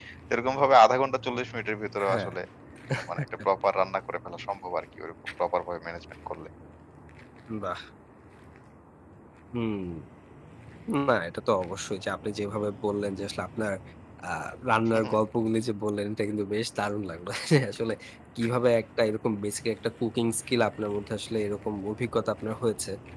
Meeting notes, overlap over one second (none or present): none